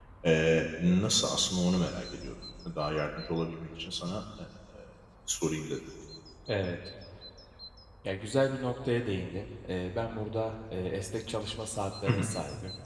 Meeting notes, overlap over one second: none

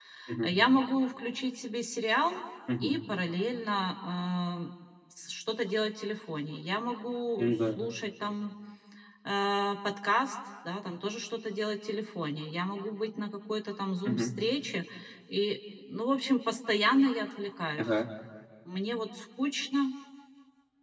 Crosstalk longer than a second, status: none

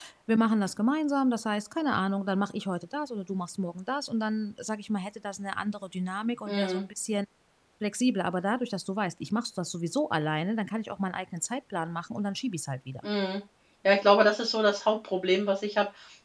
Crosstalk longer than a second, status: none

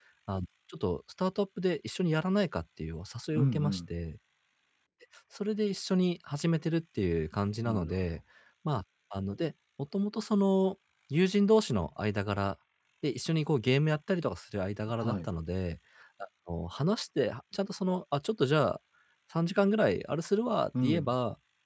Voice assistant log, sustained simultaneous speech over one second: none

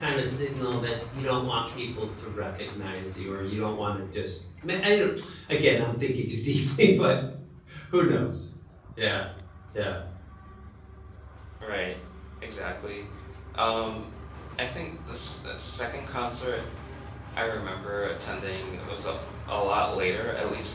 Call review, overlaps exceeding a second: none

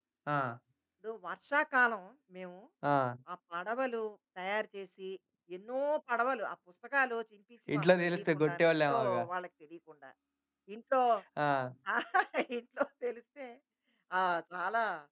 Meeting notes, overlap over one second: present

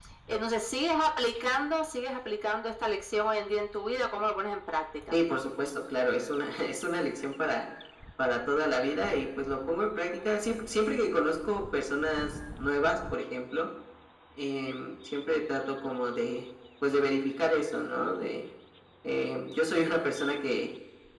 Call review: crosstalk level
none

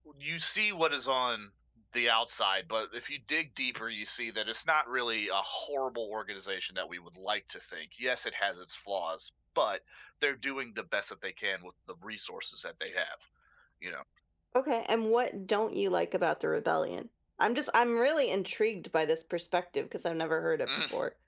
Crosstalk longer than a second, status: none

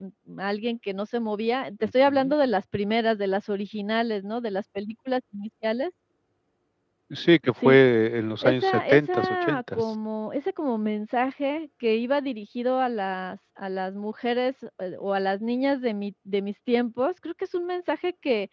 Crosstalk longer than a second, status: present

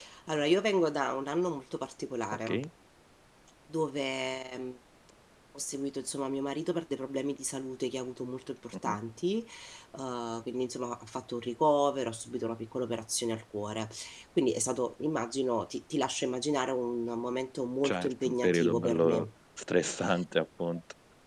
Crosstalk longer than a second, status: present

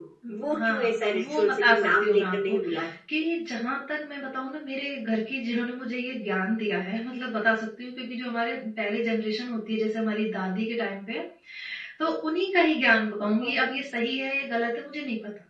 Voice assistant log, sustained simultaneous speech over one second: present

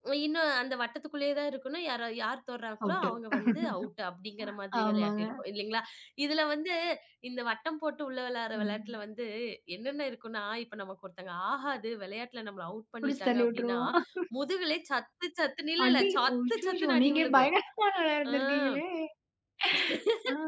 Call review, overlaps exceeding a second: present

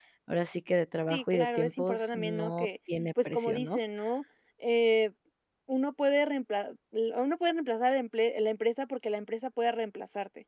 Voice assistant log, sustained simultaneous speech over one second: present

